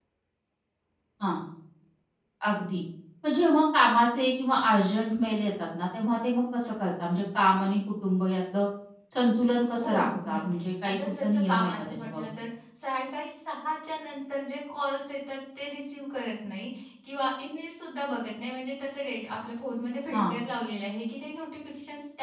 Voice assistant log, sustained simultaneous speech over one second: present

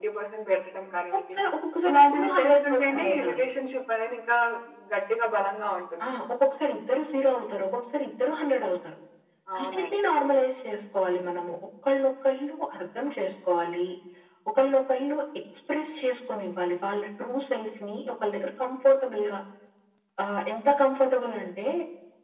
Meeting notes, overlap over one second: present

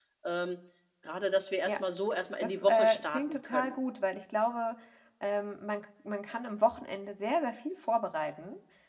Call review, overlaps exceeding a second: present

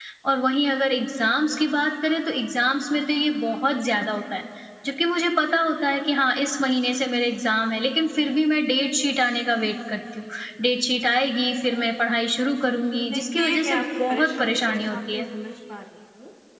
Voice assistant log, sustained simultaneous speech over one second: present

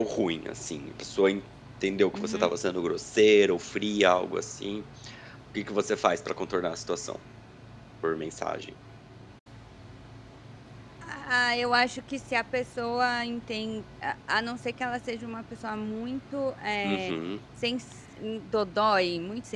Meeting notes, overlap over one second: none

